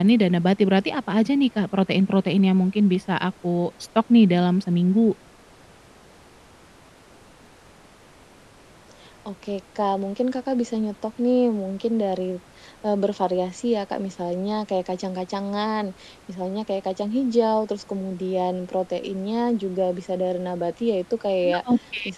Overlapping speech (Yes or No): No